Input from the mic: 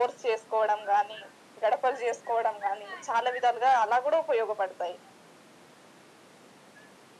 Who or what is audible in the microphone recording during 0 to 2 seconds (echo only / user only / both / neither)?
echo only